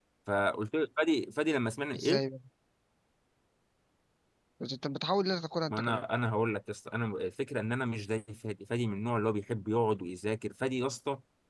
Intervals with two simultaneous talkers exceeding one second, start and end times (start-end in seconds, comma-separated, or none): none